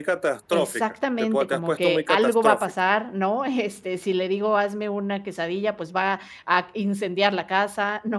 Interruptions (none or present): present